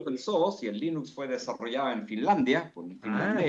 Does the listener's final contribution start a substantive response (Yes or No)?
Yes